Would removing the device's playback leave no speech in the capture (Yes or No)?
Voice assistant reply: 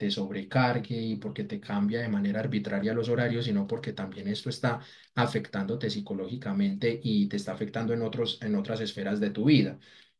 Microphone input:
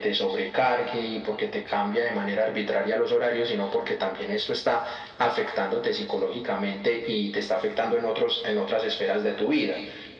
Yes